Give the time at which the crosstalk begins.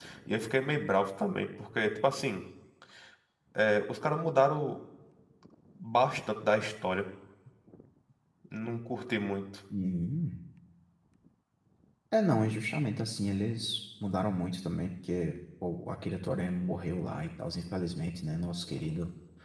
none

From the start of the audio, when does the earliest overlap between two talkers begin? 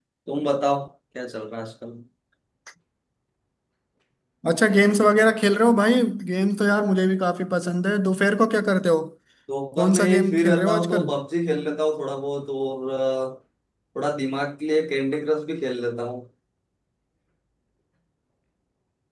9.8 s

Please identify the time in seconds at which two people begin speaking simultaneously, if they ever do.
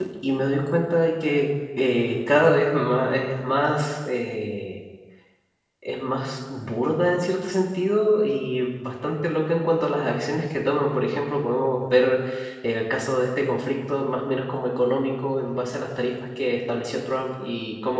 none

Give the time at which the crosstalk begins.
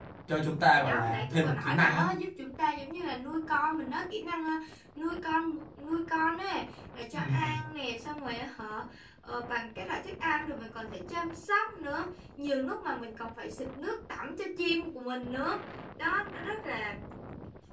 0.8 s

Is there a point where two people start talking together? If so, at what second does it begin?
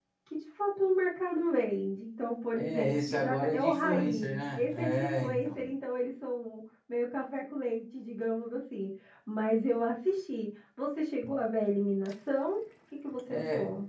2.5 s

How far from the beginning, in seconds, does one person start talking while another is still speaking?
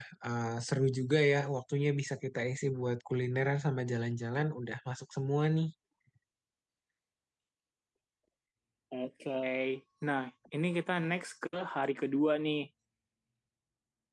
none

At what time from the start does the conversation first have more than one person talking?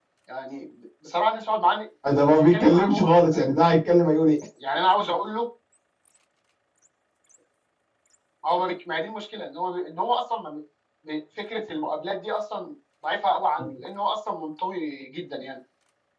2.2 s

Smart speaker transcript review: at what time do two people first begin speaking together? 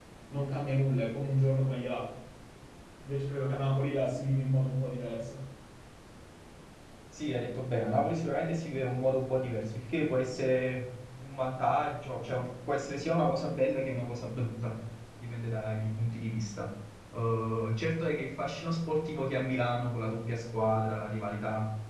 none

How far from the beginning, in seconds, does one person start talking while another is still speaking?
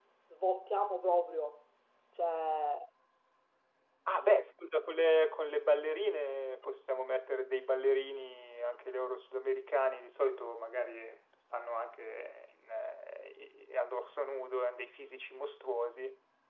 none

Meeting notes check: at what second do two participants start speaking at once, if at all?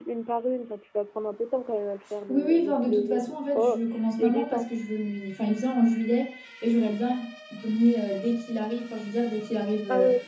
2.3 s

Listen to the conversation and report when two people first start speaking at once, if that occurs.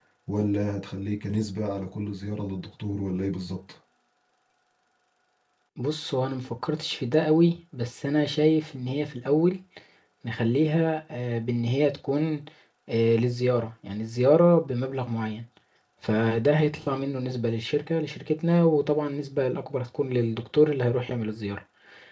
none

